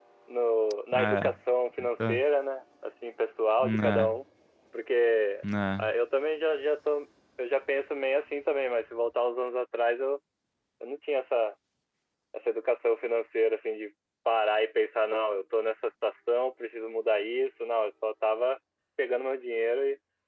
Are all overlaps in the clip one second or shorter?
Yes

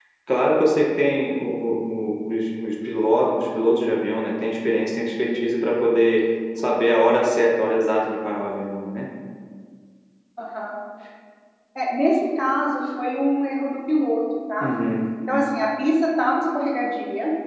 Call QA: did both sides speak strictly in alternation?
Yes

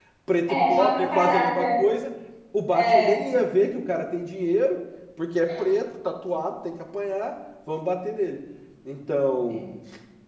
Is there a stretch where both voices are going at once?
Yes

